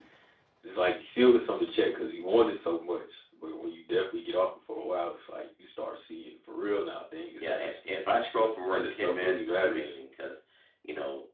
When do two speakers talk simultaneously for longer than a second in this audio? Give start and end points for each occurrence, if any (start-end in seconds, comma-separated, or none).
8.6-9.9